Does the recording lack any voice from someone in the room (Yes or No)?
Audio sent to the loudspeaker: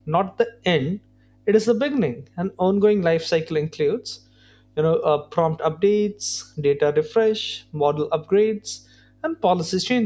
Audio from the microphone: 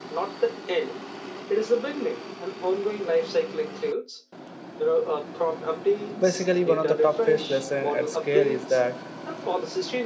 No